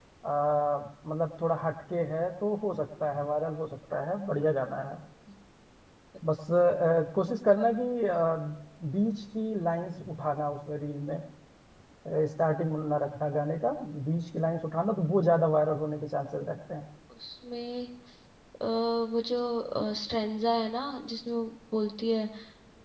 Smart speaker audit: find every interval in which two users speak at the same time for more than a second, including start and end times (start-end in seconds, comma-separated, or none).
none